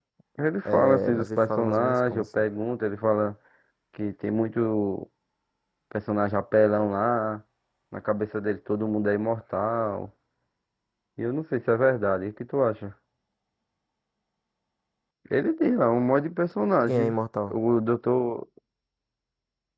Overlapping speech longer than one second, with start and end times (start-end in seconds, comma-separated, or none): 0.7-2.4